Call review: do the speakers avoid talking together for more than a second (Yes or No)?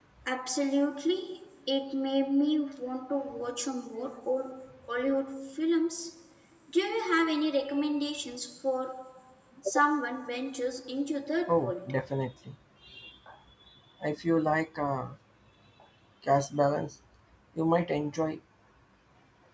Yes